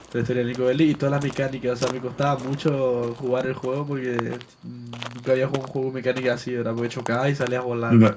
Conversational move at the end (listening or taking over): taking over